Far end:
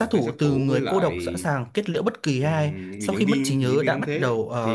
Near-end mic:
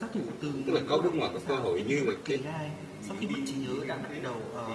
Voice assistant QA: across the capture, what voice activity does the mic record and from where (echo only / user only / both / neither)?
both